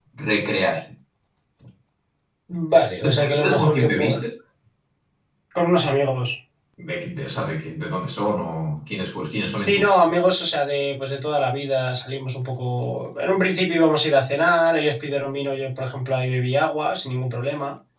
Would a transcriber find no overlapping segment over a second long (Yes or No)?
No